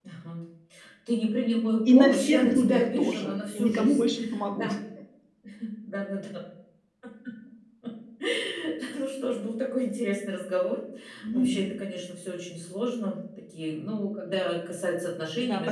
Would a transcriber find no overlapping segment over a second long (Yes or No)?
No